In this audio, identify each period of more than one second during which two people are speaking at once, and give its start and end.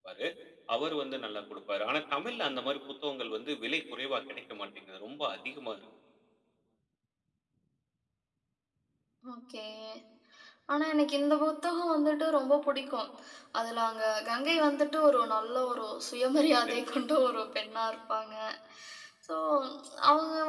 none

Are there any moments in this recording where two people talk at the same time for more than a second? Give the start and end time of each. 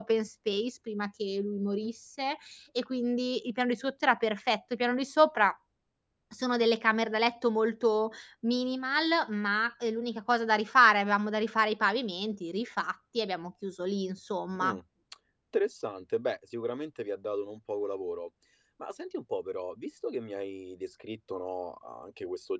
none

